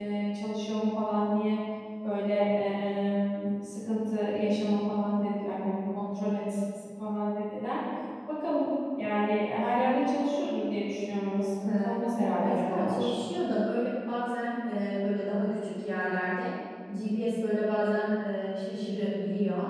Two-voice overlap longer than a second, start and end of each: 11.7-13.1

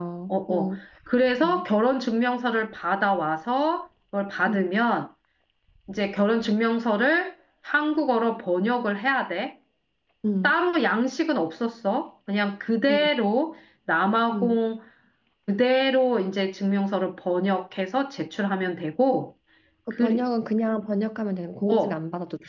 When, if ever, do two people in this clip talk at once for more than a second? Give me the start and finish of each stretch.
none

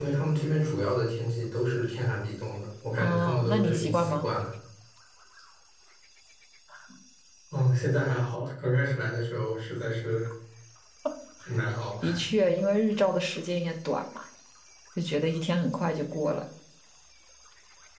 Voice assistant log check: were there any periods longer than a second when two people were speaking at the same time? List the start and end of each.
3.0-4.3

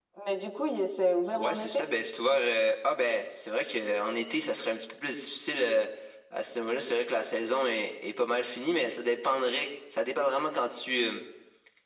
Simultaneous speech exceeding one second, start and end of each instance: none

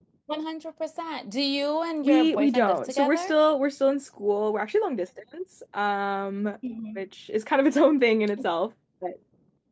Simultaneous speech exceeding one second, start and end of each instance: 2.0-3.3

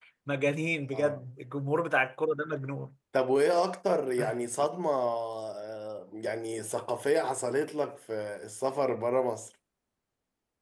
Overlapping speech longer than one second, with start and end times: none

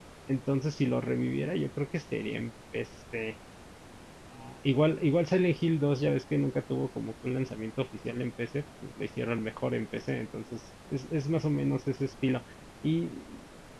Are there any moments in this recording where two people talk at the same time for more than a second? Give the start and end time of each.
none

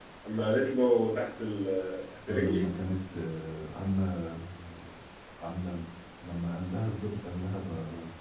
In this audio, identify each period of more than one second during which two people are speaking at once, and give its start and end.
none

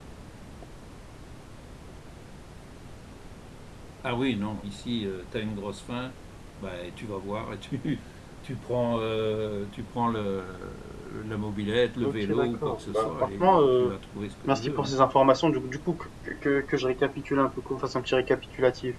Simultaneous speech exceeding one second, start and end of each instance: 12.0-13.9

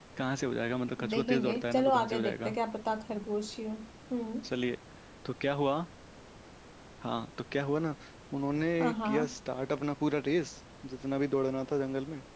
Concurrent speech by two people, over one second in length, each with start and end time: 1.1-2.5

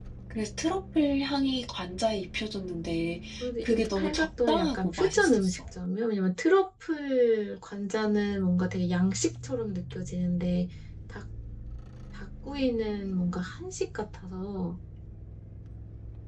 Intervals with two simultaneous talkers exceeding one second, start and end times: 3.6-5.6

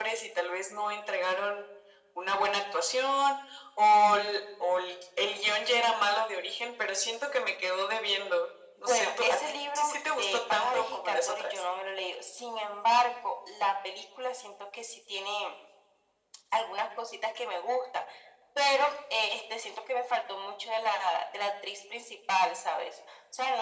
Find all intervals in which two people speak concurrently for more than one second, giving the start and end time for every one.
8.8-11.5

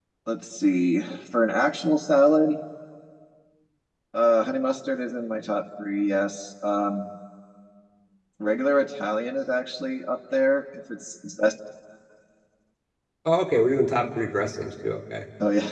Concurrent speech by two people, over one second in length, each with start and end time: none

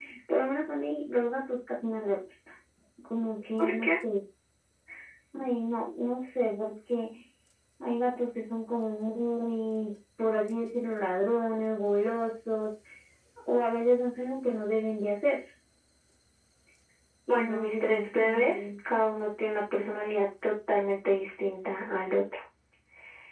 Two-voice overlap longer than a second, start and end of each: 17.3-18.6

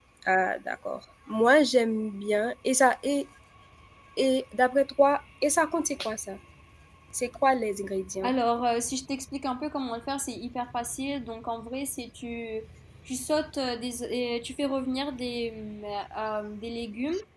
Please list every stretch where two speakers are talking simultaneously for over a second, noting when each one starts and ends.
none

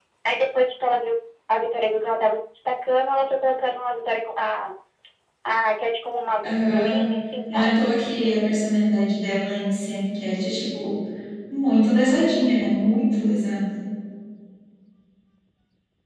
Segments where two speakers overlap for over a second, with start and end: none

